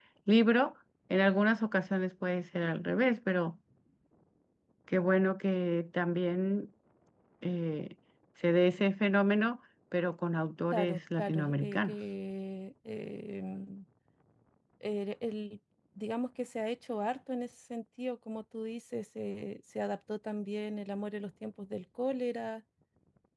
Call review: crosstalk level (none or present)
present